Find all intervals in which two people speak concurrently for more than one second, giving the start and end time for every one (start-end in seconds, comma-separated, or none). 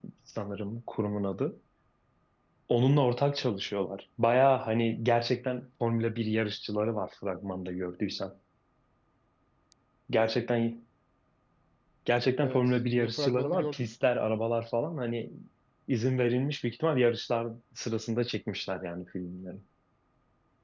12.4-13.9